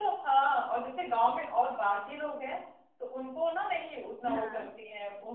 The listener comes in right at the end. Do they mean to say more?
No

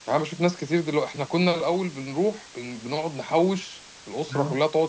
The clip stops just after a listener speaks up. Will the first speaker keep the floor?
Yes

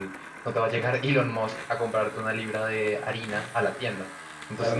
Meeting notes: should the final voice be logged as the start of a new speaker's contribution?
No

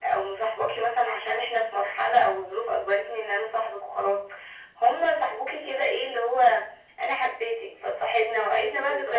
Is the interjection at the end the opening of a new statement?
No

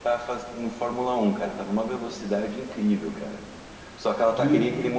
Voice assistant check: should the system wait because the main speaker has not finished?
Yes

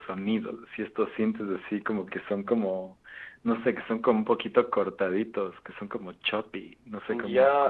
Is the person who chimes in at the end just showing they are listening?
No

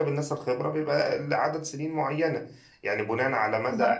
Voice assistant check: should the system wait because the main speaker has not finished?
No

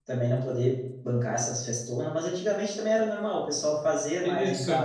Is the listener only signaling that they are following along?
No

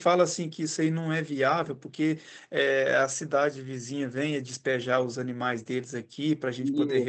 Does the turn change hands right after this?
No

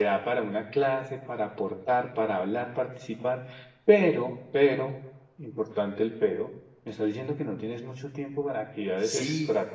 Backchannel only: No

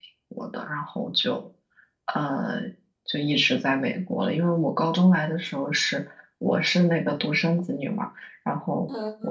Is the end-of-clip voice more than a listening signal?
No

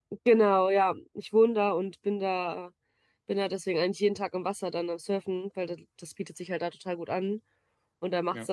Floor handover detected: No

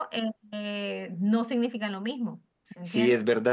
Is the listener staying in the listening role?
No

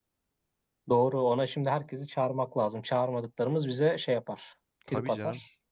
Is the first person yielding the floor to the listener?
Yes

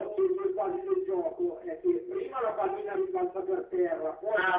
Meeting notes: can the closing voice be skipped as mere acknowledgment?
Yes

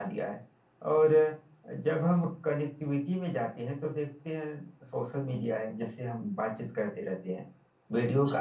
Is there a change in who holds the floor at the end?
No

